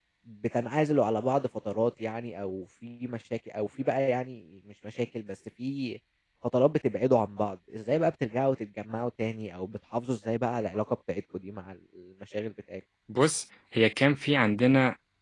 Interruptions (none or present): none